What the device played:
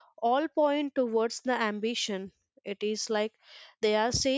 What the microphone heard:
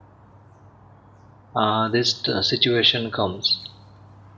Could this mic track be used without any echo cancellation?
Yes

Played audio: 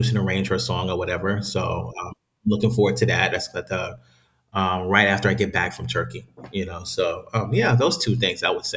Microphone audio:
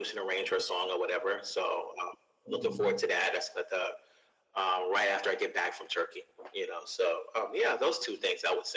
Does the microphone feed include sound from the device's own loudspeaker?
Yes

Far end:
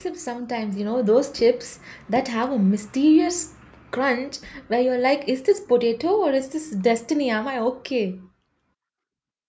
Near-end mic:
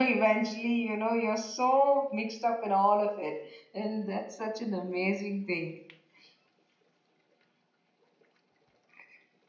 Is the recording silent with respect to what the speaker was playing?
Yes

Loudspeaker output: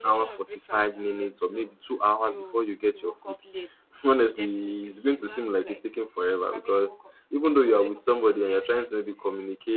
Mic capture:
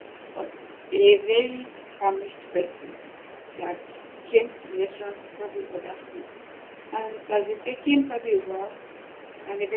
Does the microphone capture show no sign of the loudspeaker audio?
Yes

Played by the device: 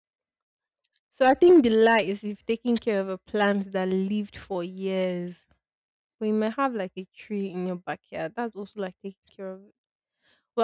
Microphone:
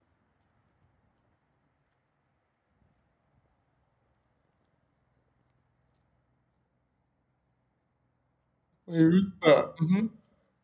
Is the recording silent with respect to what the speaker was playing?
Yes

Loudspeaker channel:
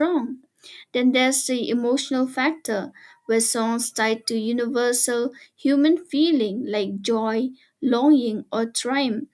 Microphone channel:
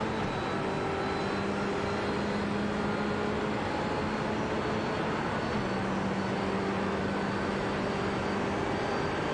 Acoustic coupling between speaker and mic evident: No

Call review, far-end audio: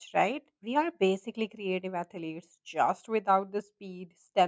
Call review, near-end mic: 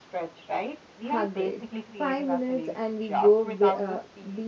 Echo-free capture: No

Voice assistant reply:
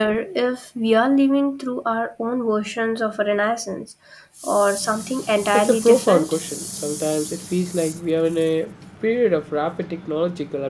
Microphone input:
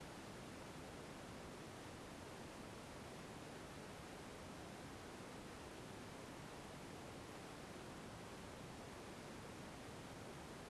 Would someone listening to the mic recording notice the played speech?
No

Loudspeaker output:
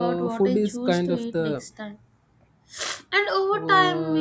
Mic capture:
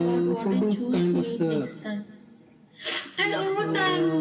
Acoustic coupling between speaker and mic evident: Yes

